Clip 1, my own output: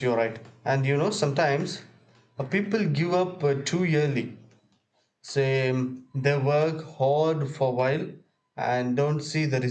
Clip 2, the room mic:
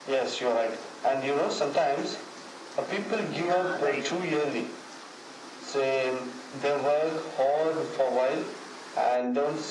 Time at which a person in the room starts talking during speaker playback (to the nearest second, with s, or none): 3 s